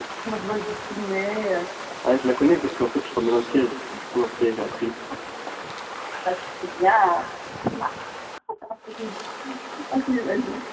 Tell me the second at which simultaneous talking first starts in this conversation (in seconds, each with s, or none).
none